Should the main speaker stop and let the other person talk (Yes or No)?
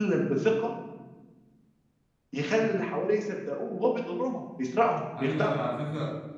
Yes